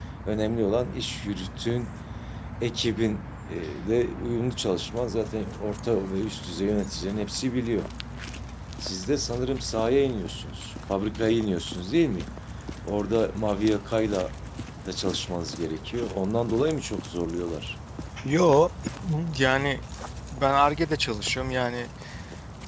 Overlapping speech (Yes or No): No